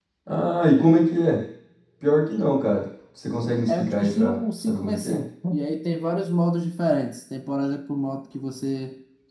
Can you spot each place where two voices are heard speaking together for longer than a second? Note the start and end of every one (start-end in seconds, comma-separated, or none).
3.7-5.2